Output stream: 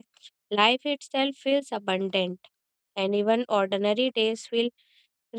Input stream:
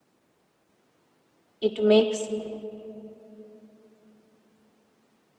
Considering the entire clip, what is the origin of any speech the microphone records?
user only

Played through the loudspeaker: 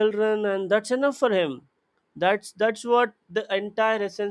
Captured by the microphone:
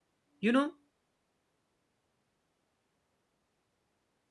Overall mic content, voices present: user only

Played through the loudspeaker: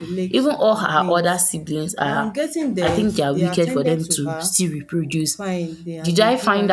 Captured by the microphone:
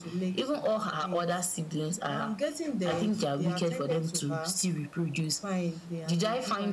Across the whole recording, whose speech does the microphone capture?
echo only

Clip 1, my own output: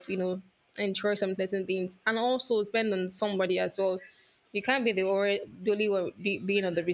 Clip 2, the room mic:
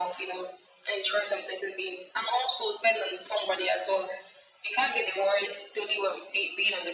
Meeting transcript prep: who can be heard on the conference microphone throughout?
echo only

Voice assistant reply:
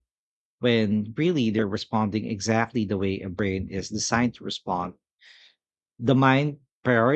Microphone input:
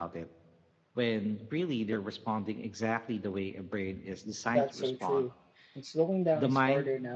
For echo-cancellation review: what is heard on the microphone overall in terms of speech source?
both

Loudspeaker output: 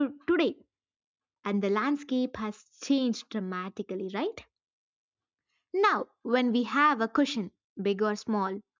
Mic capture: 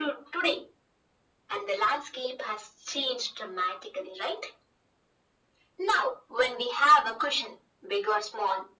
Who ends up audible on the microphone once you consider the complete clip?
echo only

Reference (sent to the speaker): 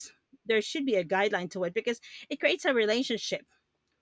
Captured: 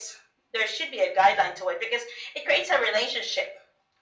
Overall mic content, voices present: echo only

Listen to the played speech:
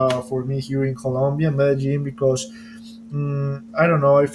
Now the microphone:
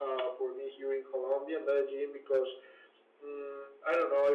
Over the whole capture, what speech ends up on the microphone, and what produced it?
echo only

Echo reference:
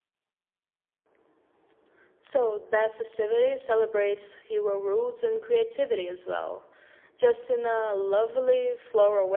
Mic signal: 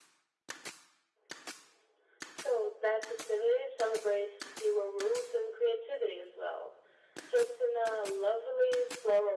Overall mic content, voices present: echo only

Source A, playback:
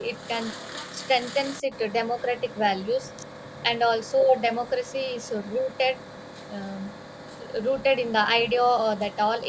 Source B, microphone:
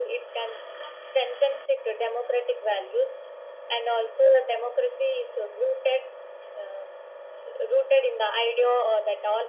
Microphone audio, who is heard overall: echo only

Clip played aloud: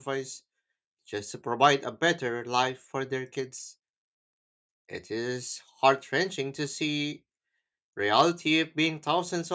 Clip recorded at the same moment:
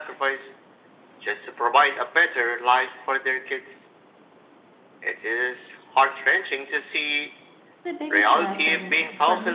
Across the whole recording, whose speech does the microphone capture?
both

